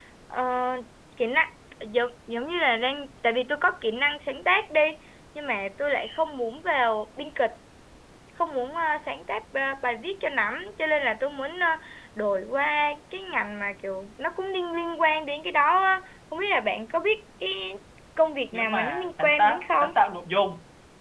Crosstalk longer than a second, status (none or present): present